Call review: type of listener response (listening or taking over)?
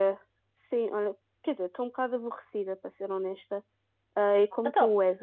listening